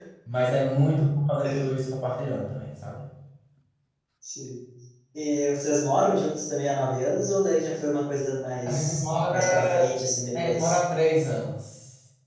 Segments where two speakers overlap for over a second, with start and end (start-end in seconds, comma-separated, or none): 8.7-9.9